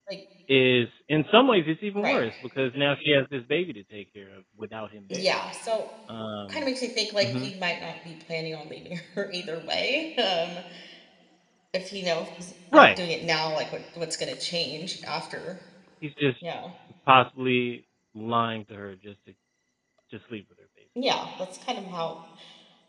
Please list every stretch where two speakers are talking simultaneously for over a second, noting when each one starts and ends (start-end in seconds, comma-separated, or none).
none